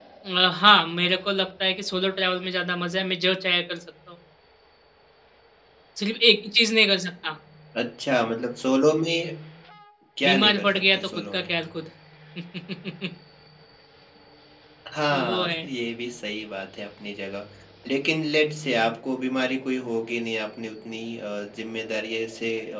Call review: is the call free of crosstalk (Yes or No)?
No